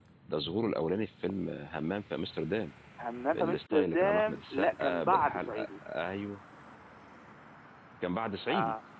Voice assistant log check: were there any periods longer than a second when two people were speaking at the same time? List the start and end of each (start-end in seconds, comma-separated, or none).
3.4-5.7